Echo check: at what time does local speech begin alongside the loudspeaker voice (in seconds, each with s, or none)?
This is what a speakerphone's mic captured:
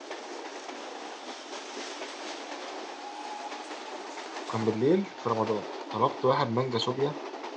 4.5 s